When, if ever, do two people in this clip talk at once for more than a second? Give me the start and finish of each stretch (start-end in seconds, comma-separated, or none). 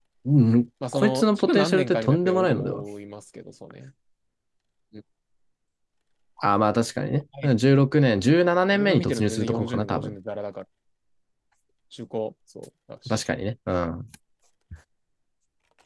0.9-2.8, 8.7-10.1